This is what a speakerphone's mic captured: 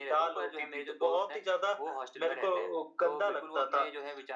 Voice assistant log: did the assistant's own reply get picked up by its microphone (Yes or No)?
Yes